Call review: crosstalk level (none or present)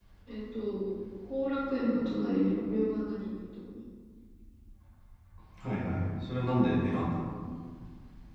none